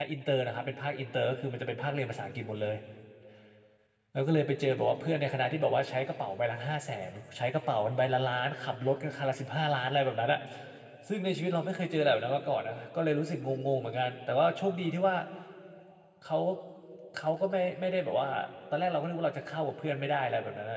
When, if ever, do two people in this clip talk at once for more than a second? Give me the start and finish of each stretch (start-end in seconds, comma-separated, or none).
none